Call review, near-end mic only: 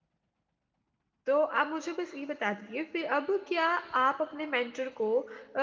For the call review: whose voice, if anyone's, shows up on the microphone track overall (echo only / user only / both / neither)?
user only